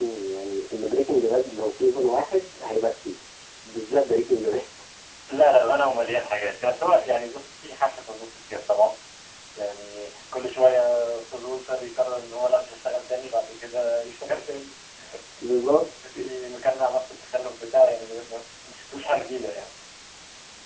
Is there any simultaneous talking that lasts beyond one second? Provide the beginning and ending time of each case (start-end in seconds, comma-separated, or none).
none